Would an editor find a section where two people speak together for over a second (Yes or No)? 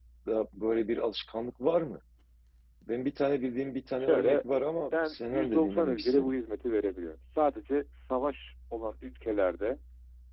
Yes